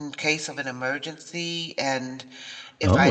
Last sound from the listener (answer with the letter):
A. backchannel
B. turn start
A